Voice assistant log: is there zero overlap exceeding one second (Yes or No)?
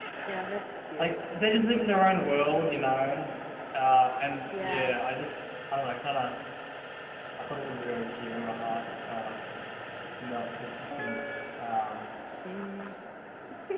Yes